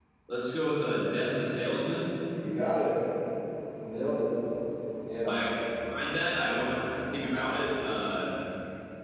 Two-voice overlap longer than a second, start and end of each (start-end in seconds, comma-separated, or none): none